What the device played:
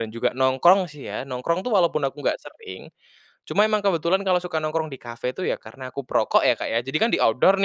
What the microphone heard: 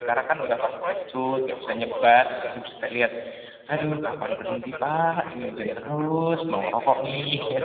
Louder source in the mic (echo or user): user